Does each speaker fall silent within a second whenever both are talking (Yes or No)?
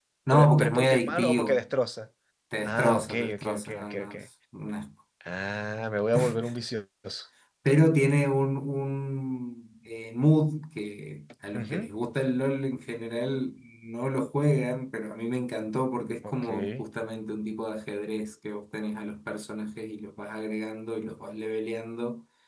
No